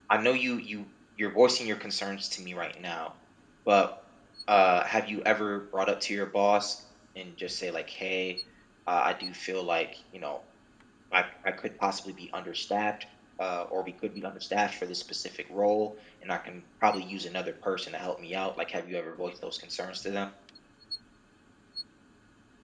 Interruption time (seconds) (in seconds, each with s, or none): none